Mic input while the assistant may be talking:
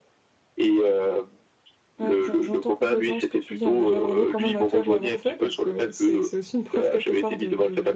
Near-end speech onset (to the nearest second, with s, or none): 2 s